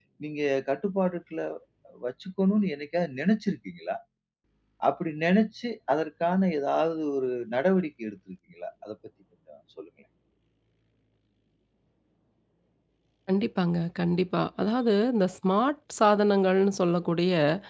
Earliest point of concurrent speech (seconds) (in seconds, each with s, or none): none